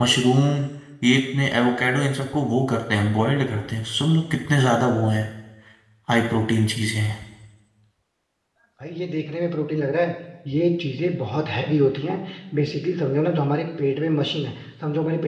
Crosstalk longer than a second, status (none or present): none